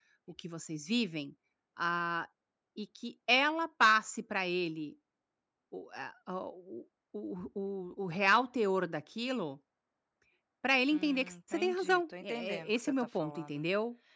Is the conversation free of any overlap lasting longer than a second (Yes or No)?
No